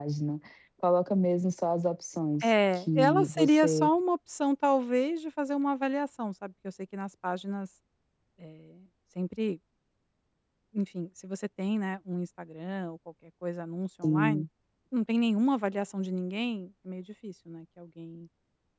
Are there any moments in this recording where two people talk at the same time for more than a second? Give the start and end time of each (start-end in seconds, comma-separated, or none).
2.4-3.9